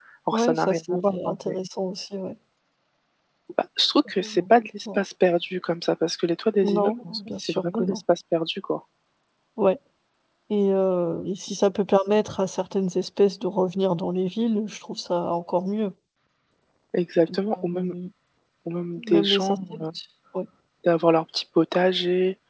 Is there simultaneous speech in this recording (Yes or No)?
Yes